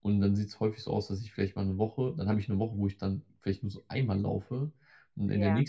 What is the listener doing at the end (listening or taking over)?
listening